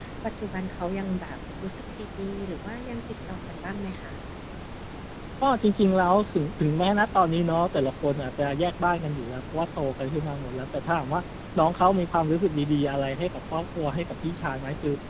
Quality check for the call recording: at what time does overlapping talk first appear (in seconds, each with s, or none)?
none